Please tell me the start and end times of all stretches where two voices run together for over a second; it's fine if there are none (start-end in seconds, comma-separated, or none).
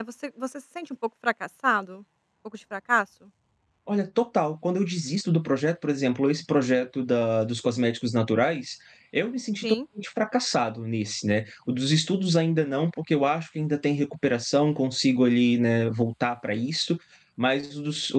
none